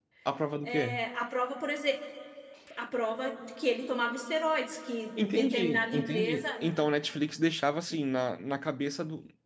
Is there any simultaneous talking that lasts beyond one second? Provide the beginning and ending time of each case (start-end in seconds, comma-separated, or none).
5.2-6.5